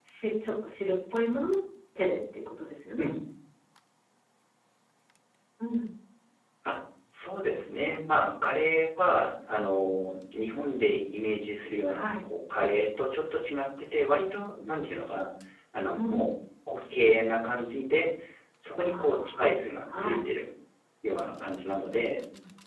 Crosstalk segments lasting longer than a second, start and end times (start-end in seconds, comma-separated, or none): none